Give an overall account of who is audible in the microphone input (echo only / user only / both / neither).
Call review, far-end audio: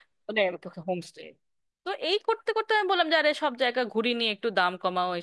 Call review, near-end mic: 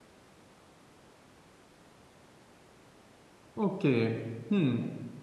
user only